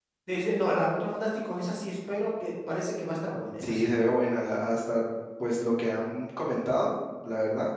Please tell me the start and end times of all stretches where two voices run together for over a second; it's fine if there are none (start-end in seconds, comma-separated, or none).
none